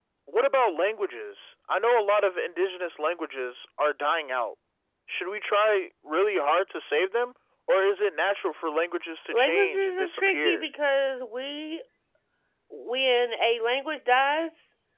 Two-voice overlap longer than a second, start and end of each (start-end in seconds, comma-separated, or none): 9.3-10.6